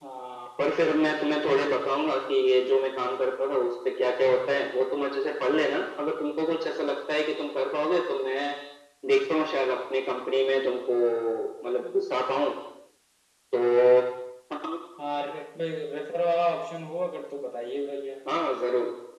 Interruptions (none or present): none